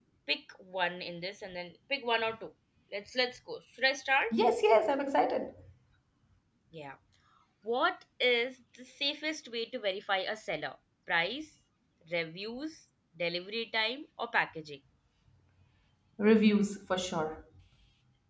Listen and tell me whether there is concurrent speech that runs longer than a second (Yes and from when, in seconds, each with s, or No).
No